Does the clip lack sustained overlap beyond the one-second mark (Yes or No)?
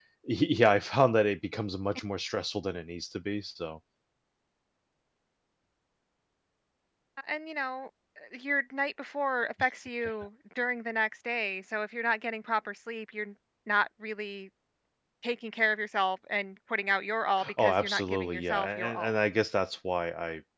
No